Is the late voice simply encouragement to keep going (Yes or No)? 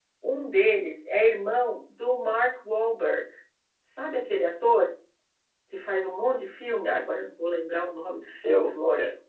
No